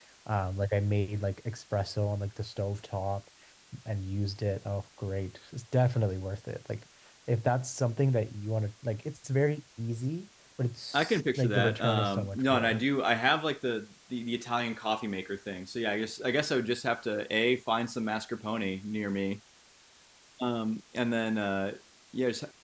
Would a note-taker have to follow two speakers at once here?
Yes, from 10.9 s

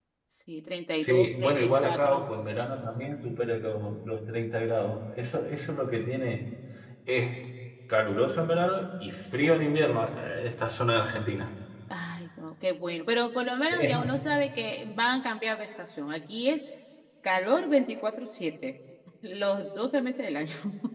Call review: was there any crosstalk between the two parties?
Yes, from 1.0 s

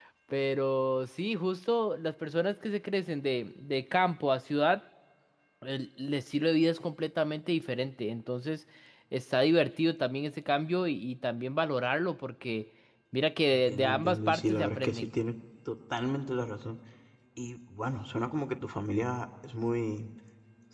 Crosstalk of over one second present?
Yes, from 13.5 s

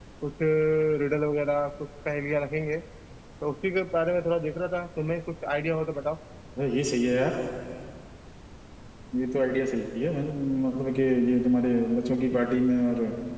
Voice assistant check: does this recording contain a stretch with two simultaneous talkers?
No

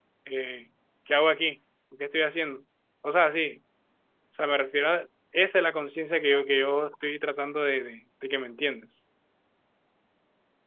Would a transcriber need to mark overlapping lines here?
No

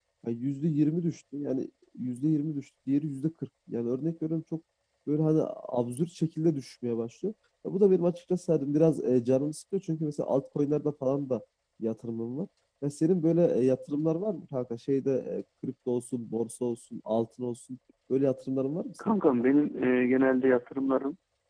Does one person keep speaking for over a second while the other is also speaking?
No

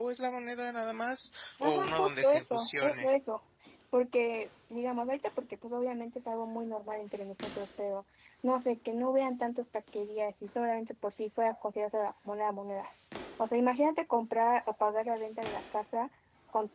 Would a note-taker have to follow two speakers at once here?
Yes, from 1.6 s

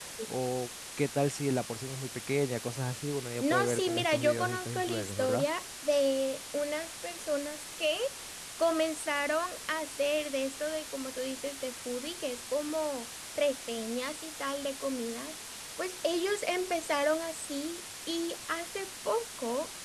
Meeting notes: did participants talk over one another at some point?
Yes, from 3.4 s

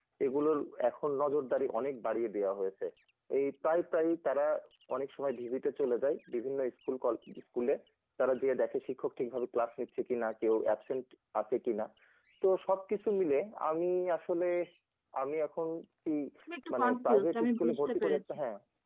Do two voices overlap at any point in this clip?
Yes, from 16.7 s

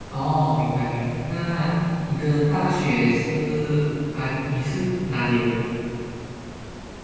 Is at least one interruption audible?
No

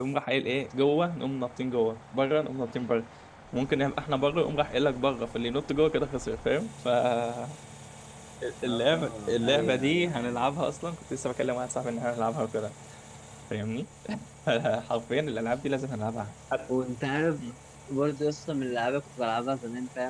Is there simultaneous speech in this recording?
Yes, from 8.6 s

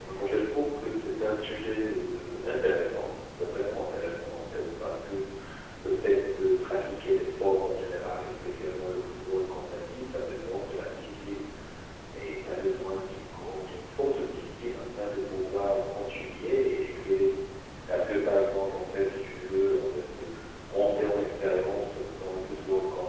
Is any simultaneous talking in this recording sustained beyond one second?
No

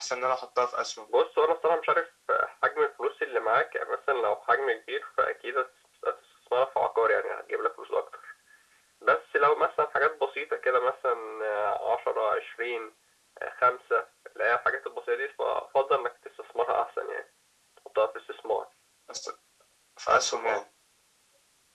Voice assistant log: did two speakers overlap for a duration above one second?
No

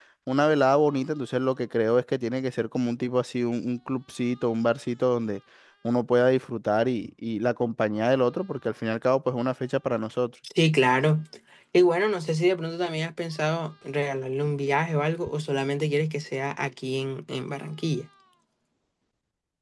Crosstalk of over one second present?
No

